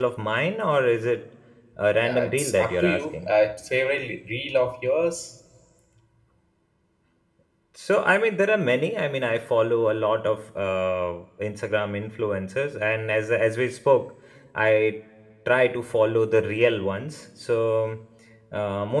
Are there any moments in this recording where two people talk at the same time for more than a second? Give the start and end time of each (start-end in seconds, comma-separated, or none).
2.0-3.3